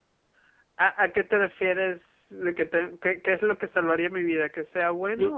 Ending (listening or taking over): taking over